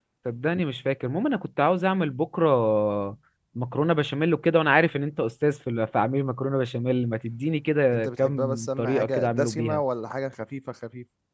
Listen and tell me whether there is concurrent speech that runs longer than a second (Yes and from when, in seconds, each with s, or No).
Yes, from 7.9 s